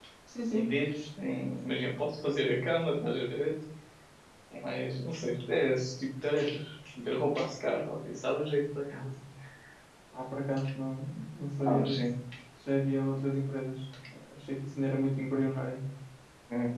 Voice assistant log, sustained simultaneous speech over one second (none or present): none